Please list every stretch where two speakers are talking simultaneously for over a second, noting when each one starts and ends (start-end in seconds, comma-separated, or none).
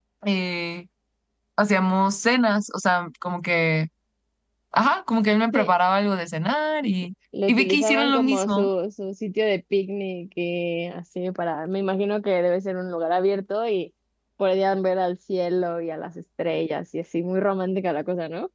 7.5-8.7